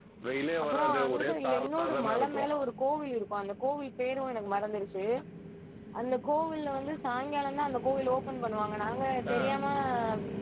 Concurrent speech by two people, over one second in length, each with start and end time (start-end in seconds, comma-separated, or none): 0.6-2.5